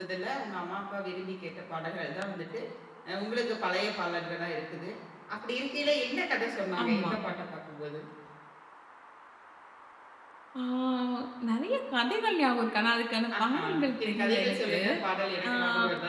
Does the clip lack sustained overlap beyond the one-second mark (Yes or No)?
No